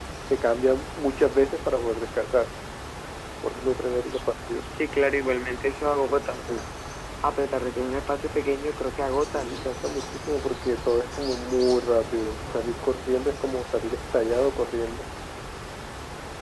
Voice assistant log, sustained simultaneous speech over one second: none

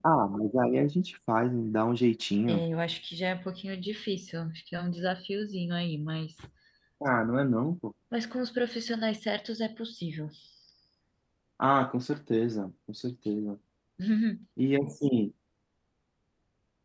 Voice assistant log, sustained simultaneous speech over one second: none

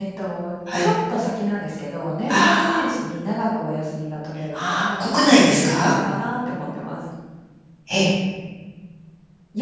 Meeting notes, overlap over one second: present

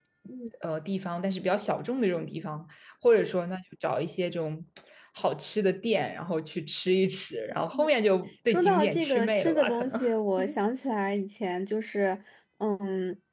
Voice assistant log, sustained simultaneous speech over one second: present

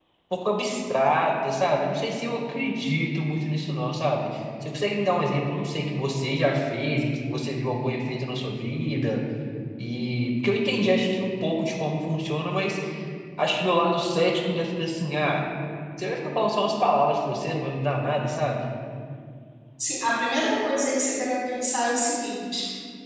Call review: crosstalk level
none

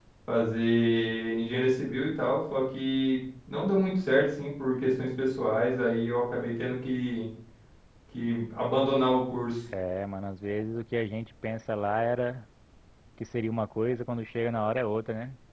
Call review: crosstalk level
none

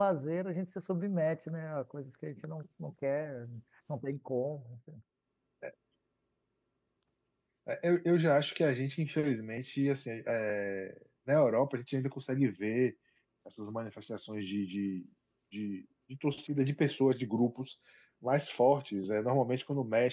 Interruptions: none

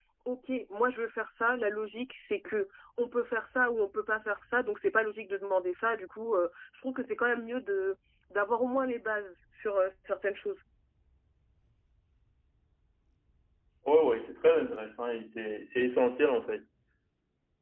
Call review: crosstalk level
none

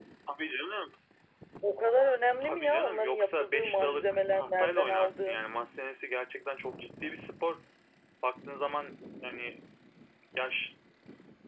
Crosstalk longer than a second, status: present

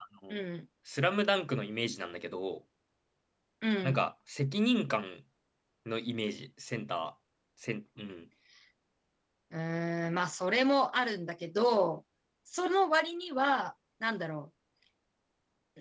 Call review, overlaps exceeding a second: none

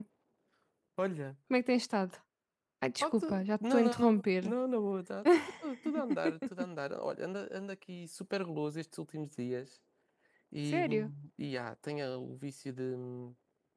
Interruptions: present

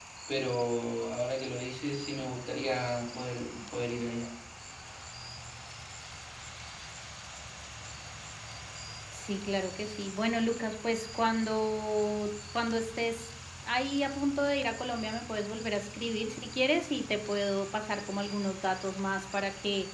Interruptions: none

